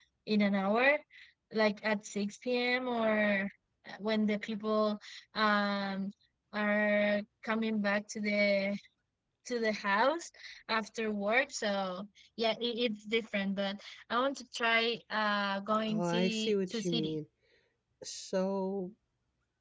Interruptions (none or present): present